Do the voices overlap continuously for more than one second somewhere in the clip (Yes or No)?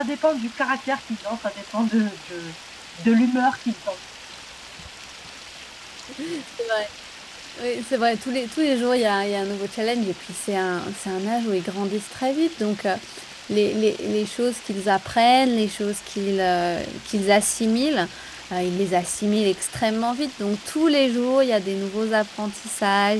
No